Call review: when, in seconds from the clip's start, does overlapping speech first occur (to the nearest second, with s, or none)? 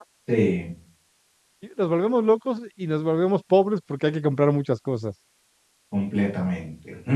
none